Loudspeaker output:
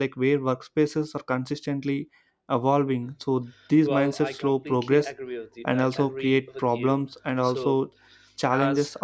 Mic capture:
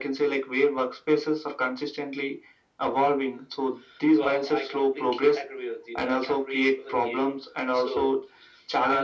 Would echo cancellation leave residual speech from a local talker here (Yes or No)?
No